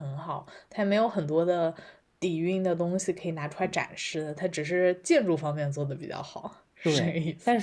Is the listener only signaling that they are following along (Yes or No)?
No